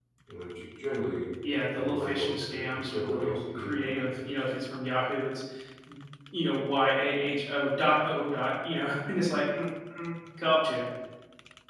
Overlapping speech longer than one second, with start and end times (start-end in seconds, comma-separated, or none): 1.7-4.3